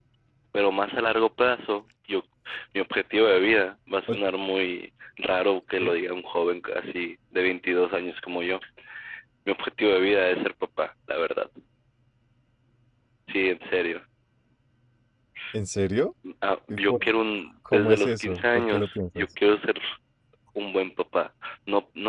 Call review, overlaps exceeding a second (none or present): present